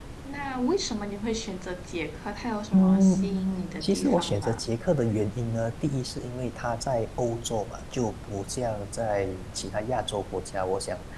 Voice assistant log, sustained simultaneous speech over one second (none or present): present